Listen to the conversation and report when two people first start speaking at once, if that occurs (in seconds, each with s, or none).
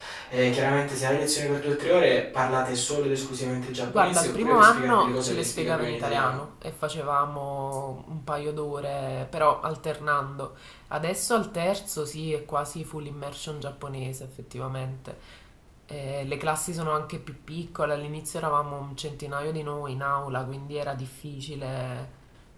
3.9 s